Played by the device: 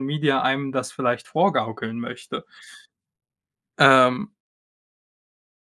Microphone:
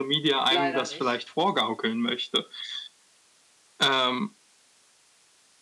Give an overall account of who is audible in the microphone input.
both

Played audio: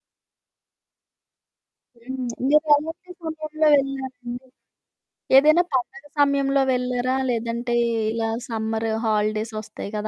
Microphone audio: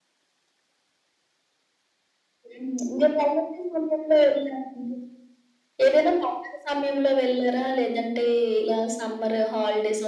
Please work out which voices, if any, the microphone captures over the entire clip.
echo only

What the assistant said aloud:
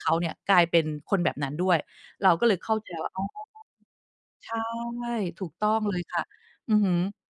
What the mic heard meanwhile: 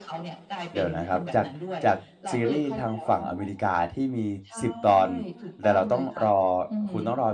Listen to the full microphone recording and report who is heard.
both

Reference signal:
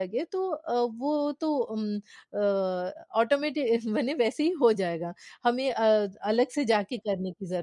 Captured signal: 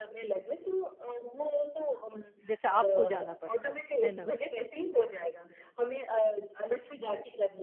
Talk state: both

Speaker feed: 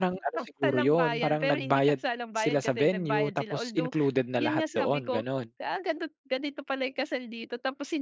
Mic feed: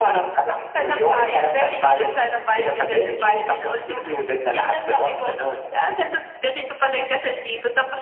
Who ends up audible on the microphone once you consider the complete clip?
echo only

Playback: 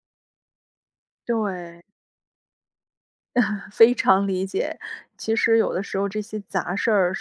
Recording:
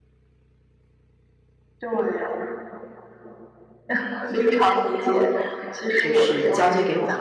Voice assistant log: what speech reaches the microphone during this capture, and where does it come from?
both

